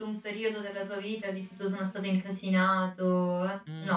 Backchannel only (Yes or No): No